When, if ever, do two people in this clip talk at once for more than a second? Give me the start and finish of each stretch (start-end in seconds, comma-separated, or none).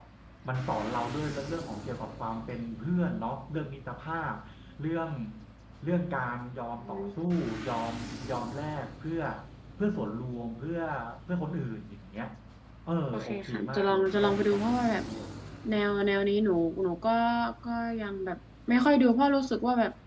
13.1-15.0